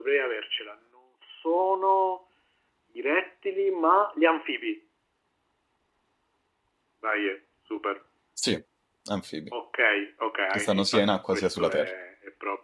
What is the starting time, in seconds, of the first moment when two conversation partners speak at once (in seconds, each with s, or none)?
10.5 s